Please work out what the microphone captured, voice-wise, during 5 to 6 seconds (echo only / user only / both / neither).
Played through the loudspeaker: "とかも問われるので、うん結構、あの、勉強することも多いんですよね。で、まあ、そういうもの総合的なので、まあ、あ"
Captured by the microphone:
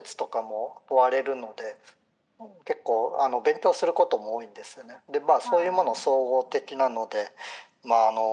both